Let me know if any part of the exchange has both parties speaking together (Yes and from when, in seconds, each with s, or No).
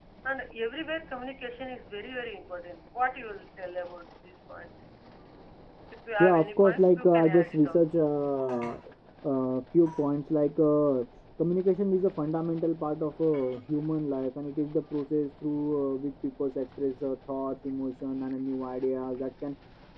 Yes, from 6.2 s